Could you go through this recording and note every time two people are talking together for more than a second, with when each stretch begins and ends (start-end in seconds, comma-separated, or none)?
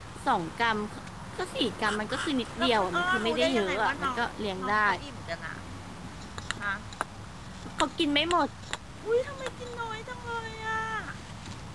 2.6-4.2